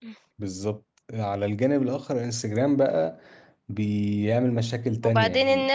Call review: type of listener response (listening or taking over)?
taking over